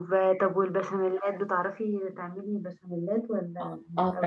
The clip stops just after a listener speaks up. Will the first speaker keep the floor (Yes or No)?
No